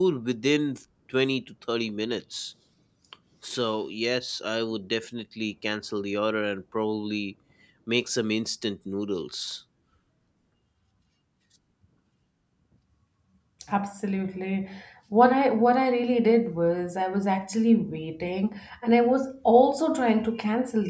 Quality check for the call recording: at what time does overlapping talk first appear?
none

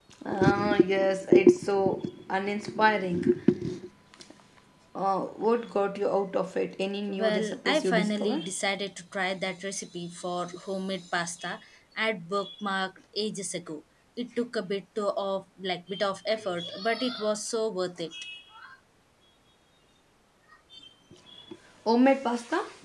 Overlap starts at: 7 s

